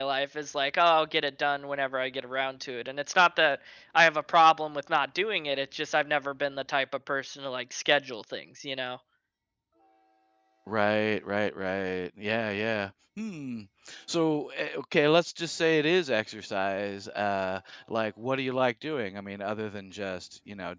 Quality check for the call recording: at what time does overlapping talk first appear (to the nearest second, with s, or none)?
none